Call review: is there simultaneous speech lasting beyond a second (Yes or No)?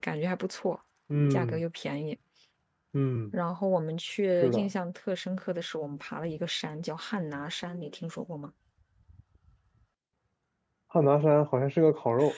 No